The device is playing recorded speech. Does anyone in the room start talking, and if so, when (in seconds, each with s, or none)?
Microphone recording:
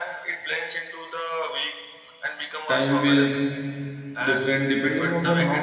2.7 s